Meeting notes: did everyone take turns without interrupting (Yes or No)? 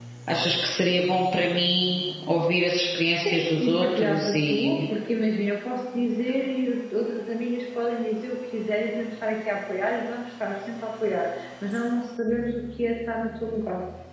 No